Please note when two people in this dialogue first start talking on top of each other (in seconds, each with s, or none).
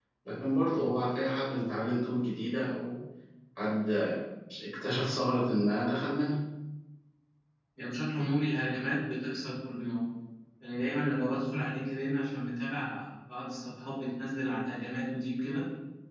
none